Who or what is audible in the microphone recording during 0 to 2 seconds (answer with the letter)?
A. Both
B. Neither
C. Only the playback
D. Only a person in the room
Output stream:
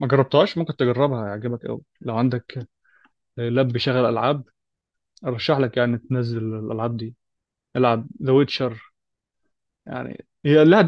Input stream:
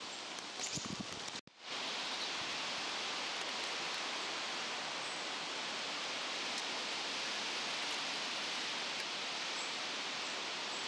B